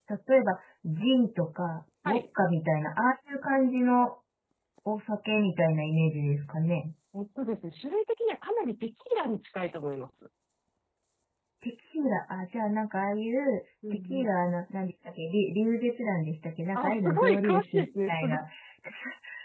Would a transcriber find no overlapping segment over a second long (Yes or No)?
No